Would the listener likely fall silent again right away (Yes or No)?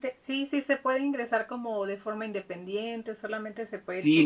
No